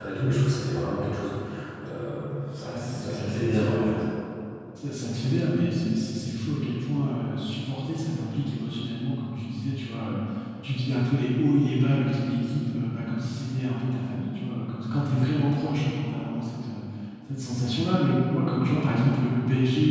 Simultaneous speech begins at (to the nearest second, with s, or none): 3 s